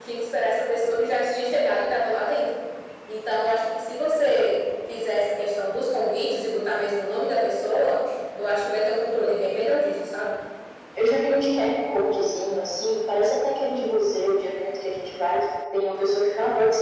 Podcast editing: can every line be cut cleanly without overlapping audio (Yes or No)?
Yes